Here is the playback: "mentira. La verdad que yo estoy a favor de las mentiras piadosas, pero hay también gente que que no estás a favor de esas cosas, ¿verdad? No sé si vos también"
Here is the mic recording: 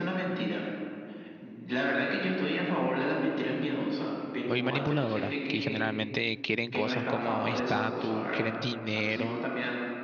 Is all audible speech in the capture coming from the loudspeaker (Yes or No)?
No